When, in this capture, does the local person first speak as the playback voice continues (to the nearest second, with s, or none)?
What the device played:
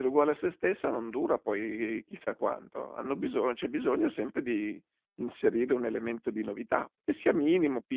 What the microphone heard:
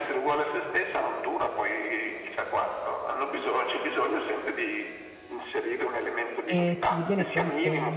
6 s